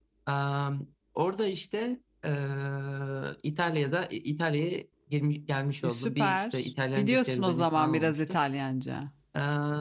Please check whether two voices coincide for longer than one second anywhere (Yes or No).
Yes